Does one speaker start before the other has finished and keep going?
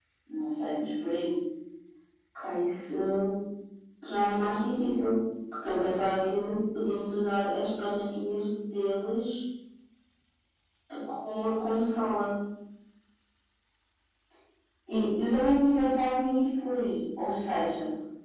No

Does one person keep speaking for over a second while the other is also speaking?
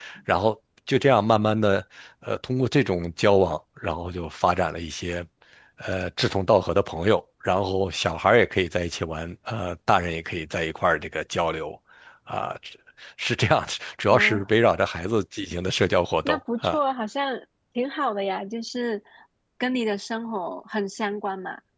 No

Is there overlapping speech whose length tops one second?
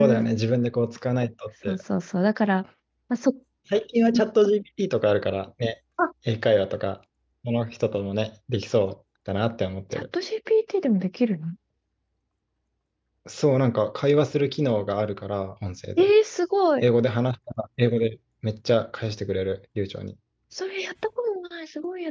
No

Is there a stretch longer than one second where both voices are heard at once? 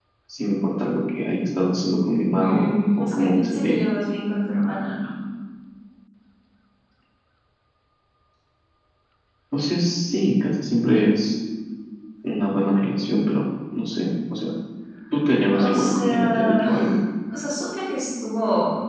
Yes, from 2.4 s

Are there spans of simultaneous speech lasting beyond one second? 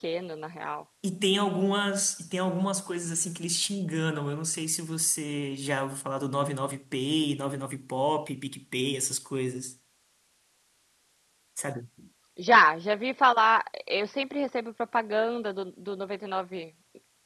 No

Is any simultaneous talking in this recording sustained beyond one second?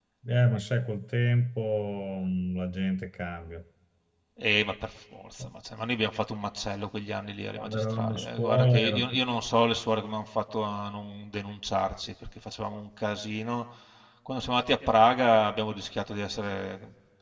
Yes, from 7.6 s

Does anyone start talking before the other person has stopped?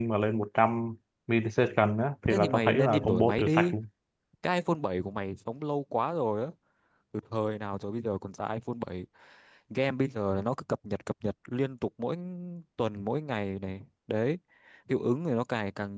Yes, from 2.3 s

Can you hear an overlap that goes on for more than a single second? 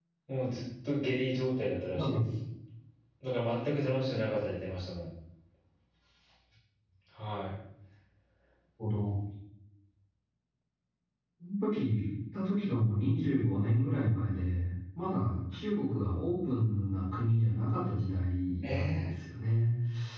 No

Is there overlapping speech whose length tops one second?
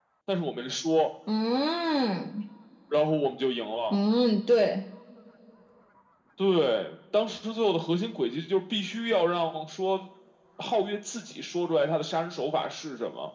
No

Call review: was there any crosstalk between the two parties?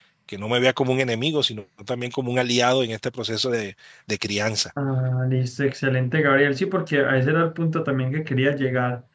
No

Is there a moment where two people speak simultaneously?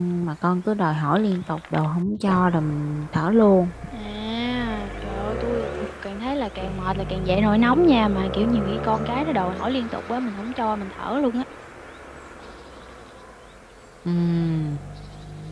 No

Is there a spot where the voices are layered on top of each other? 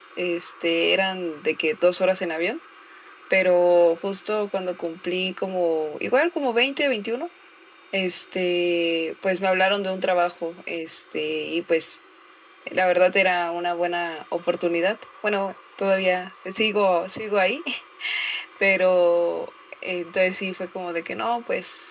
No

